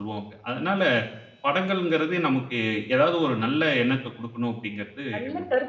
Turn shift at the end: Yes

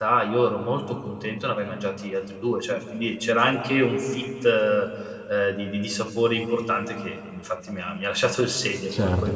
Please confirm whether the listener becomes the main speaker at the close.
Yes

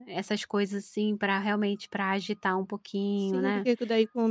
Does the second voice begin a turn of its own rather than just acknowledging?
Yes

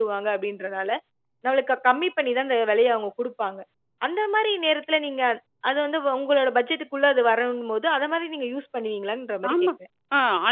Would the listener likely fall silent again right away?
No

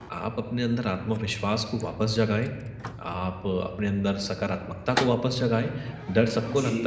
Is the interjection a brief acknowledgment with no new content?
Yes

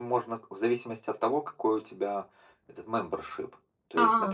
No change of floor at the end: Yes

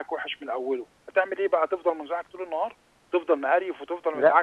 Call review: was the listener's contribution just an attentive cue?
Yes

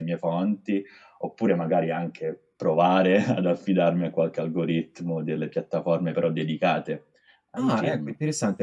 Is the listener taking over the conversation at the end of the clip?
Yes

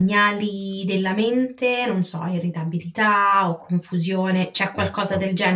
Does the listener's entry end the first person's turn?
No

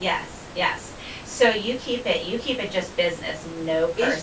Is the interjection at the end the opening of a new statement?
Yes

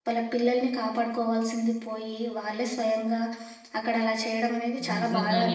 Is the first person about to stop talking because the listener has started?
Yes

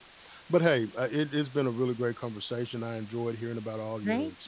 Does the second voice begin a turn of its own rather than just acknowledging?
No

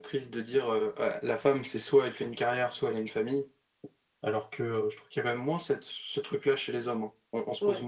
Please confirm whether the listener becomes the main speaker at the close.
Yes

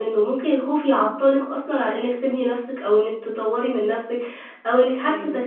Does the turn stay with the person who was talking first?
Yes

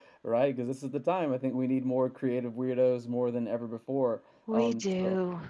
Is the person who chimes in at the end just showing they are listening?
Yes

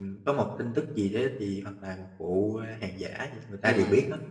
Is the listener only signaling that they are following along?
No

